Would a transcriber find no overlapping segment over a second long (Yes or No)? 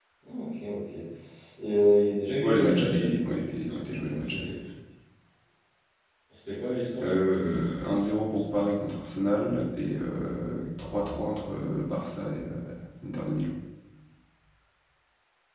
No